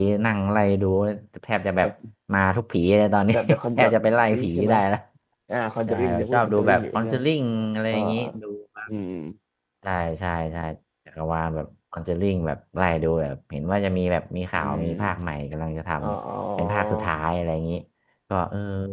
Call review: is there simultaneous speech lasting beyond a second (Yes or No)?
Yes